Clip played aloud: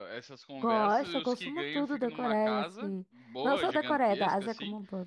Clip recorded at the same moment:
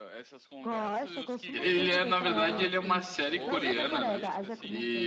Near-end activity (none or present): present